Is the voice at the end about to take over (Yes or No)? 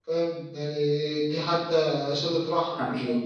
Yes